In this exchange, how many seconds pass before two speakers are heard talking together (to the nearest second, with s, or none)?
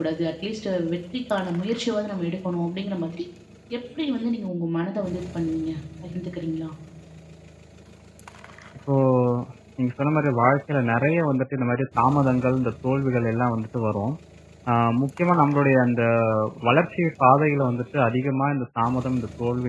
none